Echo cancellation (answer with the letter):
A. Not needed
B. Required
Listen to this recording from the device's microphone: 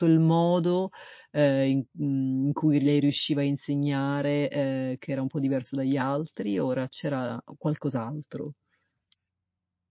A